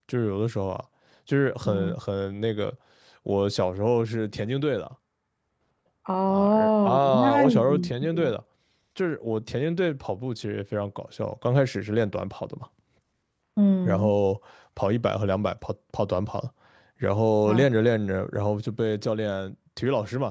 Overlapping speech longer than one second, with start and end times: 6.3-8.3

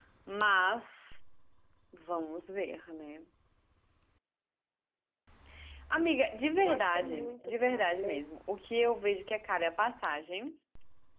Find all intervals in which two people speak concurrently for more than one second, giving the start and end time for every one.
6.6-8.2

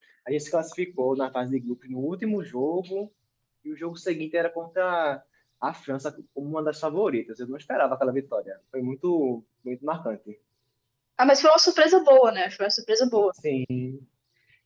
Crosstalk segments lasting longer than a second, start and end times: none

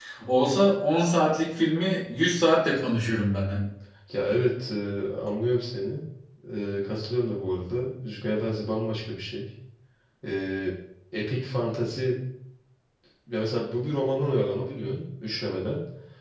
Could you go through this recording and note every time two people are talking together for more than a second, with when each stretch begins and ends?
none

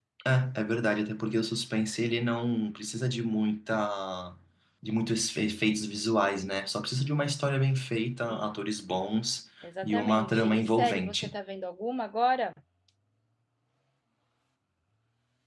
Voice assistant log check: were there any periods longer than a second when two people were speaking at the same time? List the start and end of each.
9.8-11.3

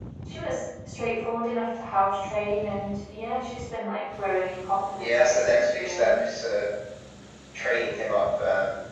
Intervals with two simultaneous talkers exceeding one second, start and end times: 5.0-6.2

